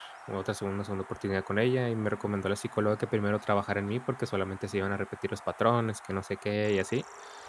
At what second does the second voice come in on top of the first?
none

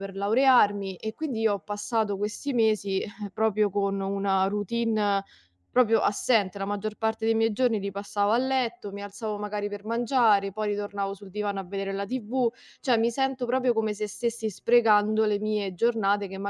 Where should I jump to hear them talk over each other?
none

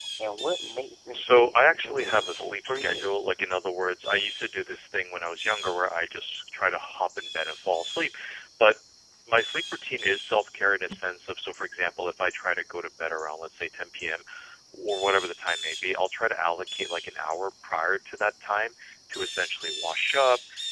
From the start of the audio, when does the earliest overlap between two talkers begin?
1.1 s

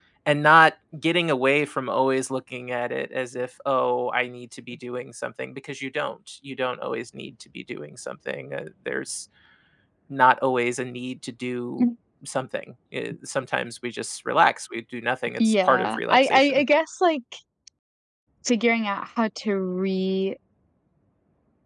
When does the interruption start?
15.4 s

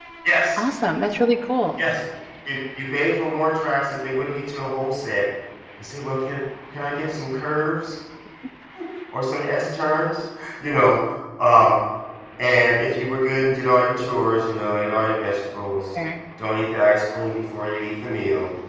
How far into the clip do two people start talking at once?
none

